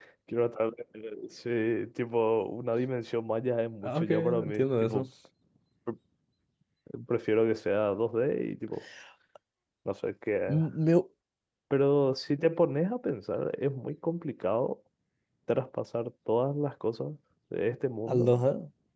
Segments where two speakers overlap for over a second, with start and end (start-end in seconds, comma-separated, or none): 3.8-5.0